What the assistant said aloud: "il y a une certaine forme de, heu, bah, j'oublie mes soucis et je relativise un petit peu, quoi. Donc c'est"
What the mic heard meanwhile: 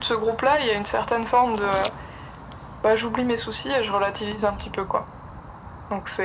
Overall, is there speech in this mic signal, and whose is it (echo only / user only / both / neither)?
echo only